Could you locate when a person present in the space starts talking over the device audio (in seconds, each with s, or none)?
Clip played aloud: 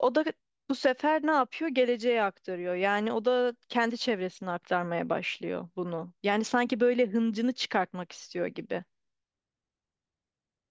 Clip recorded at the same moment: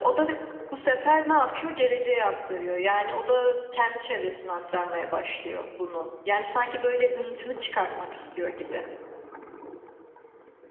none